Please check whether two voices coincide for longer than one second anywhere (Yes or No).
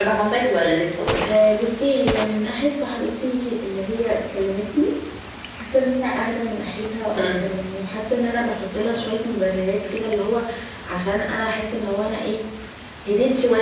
No